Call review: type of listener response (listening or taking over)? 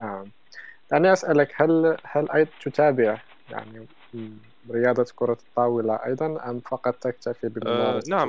taking over